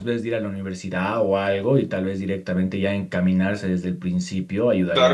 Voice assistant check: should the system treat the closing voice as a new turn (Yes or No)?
Yes